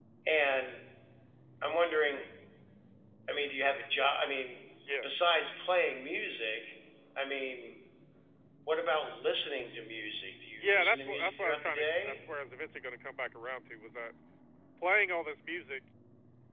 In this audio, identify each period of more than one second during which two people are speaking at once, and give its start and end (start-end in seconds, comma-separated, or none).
10.6-12.2